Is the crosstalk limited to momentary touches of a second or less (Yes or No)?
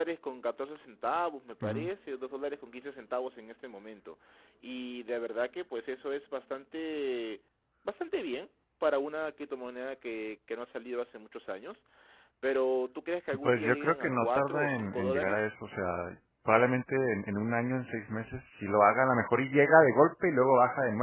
No